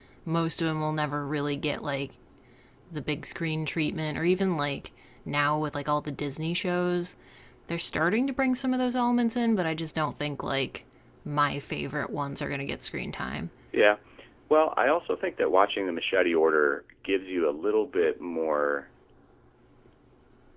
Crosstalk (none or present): none